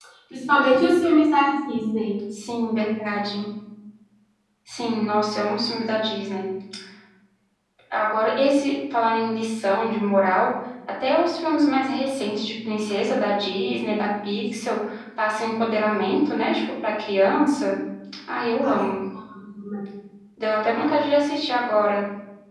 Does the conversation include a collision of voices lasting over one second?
No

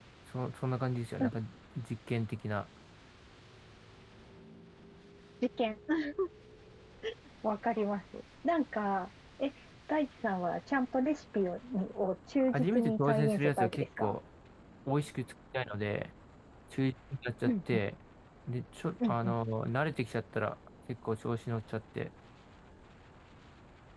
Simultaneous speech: Yes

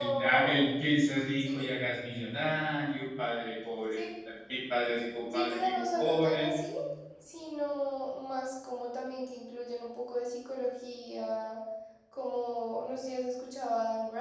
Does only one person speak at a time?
No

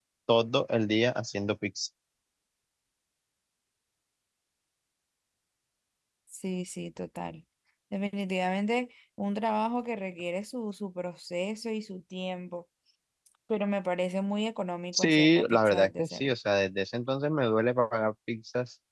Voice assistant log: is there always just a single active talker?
No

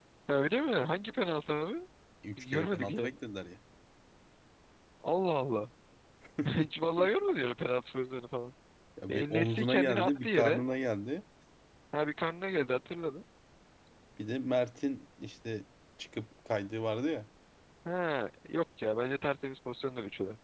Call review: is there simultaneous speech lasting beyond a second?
Yes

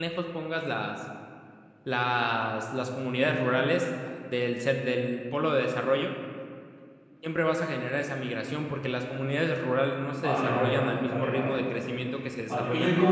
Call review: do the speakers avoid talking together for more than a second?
No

